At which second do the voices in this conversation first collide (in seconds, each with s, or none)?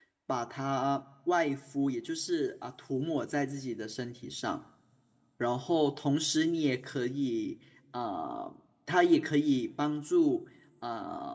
none